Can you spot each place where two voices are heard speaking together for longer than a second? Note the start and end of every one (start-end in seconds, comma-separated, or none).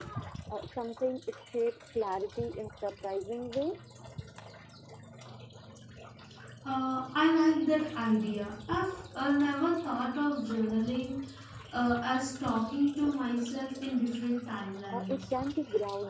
none